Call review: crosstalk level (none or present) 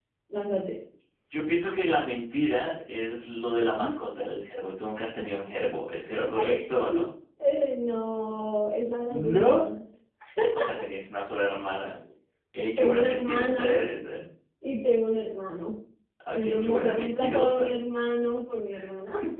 present